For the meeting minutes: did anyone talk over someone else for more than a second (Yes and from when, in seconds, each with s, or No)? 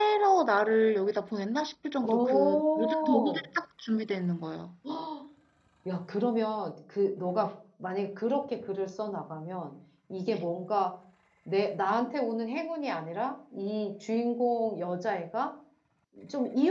Yes, from 2.0 s